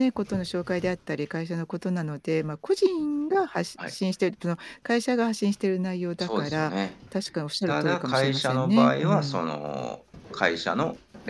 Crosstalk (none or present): present